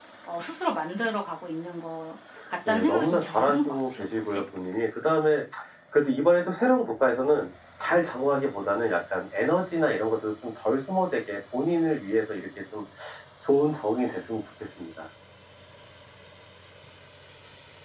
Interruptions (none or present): present